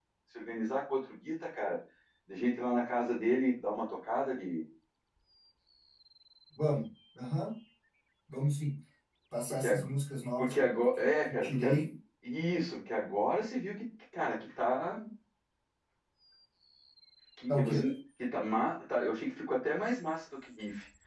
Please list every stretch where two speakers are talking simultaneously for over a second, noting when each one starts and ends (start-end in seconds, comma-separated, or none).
10.4-11.9